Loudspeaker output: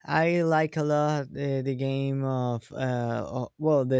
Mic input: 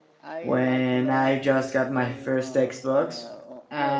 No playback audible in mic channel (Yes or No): No